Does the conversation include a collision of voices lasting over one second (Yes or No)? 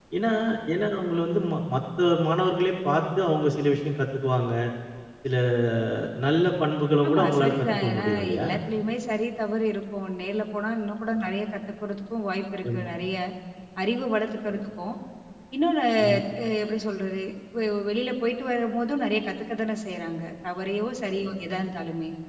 Yes